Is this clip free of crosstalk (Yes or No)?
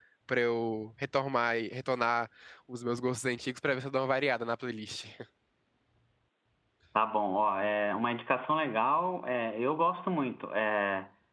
Yes